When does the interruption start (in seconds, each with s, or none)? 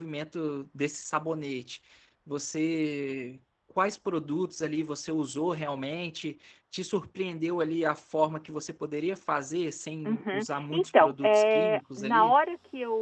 10.1 s